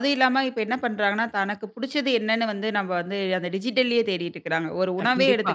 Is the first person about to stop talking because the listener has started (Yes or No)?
No